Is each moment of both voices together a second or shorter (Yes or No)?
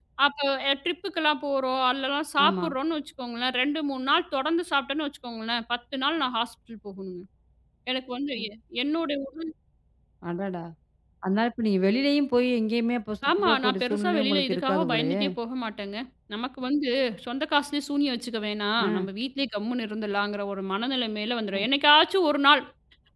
No